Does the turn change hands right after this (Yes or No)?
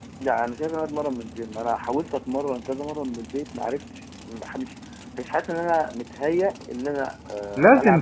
Yes